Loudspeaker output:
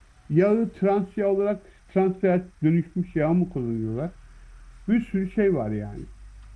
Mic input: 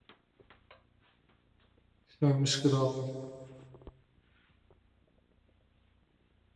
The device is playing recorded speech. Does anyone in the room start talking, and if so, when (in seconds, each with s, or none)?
2.1 s